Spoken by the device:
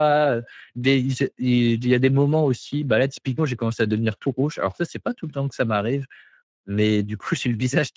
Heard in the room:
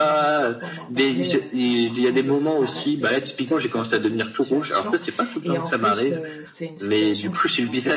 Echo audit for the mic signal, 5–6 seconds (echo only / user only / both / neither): both